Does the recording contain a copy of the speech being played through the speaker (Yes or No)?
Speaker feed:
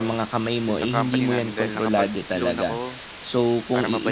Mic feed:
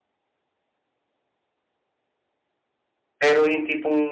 No